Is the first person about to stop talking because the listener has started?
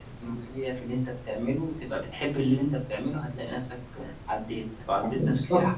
Yes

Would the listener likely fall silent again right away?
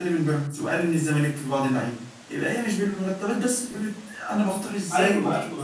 No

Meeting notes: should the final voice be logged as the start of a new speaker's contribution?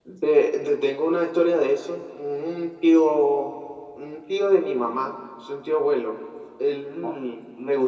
No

